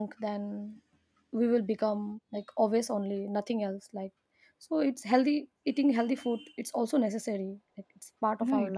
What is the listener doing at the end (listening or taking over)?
taking over